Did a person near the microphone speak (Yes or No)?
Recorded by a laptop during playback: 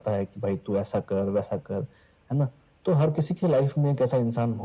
No